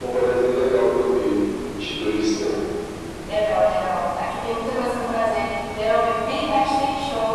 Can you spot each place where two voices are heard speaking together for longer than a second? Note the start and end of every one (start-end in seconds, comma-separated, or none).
none